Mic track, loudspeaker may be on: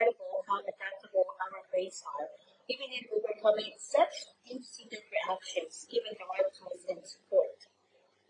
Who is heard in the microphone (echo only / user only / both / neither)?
echo only